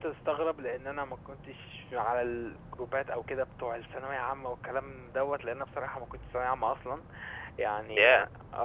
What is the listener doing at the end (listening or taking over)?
listening